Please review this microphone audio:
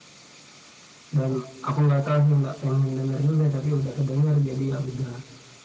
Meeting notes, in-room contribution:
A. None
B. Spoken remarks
A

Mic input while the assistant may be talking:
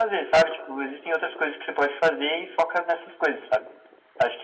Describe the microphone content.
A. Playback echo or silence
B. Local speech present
A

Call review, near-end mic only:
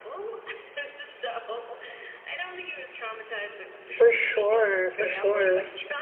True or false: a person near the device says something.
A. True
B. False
A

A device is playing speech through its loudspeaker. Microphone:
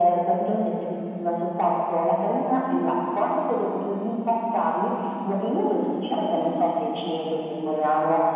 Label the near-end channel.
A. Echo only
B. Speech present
A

